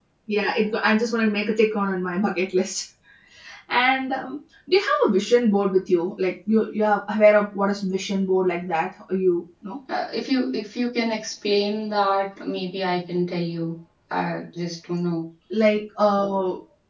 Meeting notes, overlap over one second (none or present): none